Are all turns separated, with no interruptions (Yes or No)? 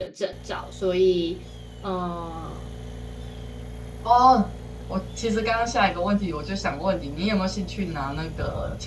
Yes